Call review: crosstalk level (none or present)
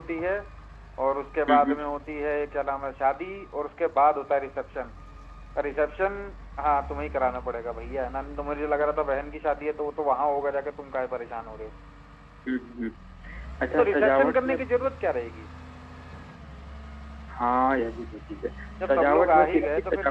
present